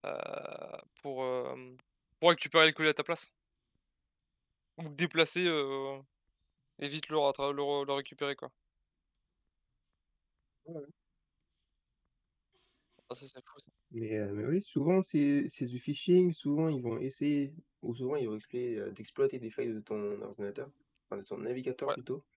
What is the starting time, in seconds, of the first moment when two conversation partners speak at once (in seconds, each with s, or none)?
none